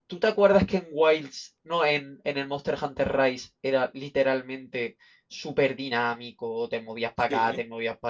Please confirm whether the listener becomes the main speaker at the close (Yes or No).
No